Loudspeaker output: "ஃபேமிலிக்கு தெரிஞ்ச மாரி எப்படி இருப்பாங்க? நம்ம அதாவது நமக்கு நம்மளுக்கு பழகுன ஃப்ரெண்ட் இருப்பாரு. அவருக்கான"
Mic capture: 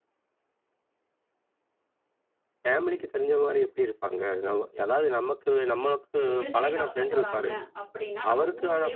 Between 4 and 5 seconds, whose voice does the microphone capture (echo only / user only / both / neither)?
echo only